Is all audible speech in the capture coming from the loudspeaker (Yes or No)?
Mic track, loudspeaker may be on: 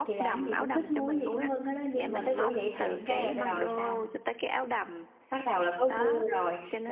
No